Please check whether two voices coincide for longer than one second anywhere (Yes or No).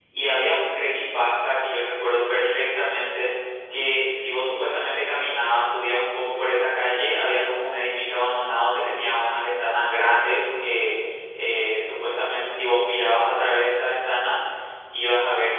No